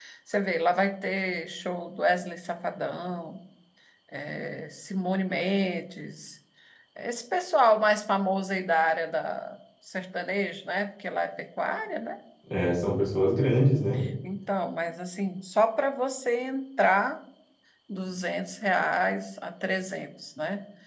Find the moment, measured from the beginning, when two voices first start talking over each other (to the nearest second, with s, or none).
none